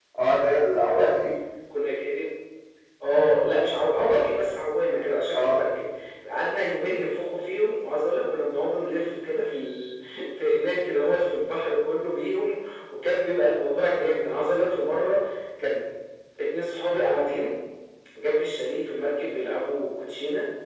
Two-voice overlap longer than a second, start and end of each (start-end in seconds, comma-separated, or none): none